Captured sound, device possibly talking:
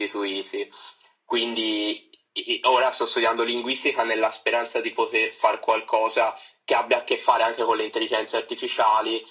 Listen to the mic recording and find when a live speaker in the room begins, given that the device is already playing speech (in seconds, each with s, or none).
none